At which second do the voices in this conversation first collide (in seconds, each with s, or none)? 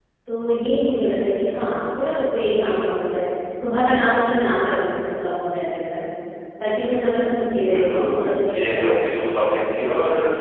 7.7 s